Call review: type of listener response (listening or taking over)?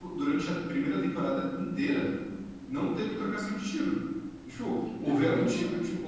listening